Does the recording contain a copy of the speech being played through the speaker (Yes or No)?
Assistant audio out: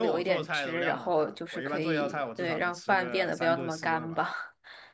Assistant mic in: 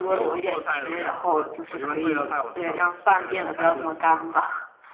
Yes